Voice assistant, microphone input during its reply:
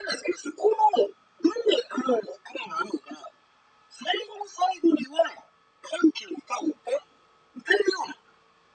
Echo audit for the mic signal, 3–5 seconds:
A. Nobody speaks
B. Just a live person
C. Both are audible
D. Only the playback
D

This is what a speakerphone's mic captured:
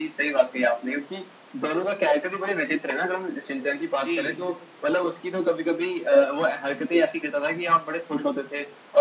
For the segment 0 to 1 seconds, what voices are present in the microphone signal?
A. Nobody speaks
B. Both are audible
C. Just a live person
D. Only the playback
D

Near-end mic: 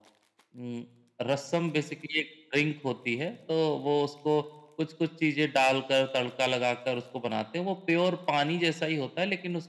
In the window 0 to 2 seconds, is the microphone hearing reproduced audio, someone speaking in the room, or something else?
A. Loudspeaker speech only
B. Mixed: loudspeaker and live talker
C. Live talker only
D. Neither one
A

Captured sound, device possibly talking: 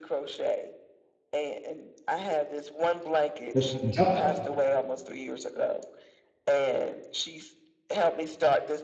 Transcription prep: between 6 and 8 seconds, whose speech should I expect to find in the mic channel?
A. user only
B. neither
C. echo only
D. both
C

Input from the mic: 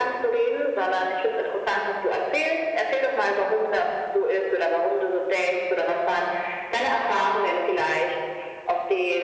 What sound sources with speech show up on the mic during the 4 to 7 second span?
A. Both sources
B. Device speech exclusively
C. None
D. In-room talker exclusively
B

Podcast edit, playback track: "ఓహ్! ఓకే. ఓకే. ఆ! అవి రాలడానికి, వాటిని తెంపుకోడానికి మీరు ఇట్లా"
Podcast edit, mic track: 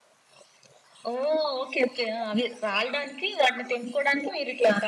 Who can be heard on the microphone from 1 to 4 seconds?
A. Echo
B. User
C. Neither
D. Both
A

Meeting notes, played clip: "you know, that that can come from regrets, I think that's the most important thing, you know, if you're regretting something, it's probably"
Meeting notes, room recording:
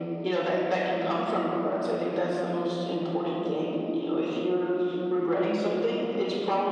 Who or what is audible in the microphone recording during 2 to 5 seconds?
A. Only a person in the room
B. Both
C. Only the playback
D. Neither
C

